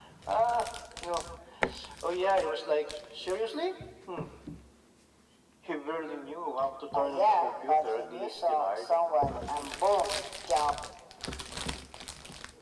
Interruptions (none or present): present